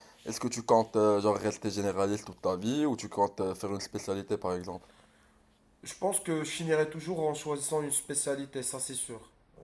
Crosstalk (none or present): none